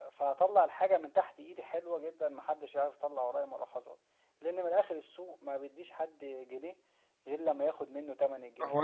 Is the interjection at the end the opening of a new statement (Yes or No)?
Yes